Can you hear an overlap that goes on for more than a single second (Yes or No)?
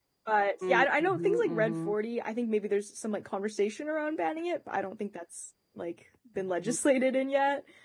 Yes